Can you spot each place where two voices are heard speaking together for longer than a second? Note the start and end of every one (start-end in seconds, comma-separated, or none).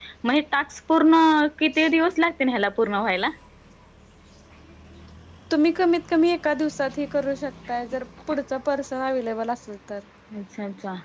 none